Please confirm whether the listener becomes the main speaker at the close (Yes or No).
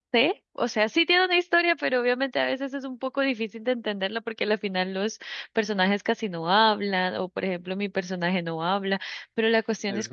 No